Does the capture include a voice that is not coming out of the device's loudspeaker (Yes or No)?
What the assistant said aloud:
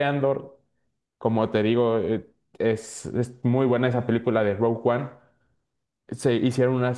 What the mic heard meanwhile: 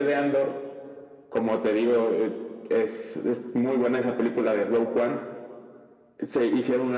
No